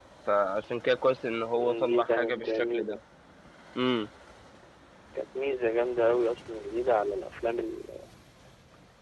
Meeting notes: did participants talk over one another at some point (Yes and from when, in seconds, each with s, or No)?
Yes, from 1.6 s